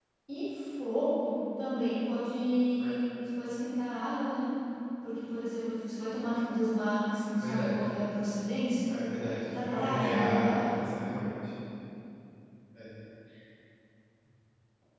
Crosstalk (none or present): present